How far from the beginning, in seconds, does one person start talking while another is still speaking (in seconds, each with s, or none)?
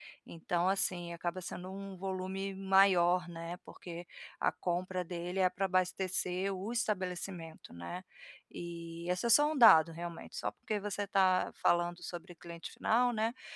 none